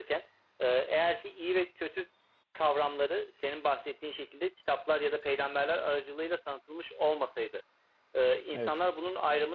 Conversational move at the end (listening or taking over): listening